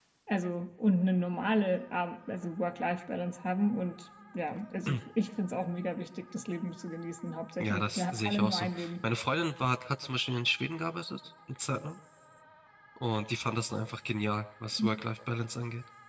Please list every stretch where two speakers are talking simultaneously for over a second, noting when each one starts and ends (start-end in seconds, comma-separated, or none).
7.6-8.9